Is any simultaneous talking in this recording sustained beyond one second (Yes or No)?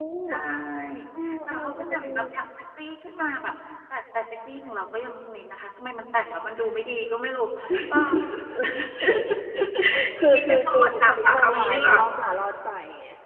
Yes